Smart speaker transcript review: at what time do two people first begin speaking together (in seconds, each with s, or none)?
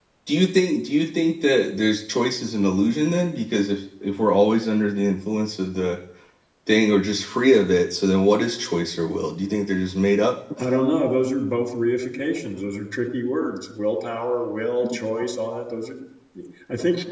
none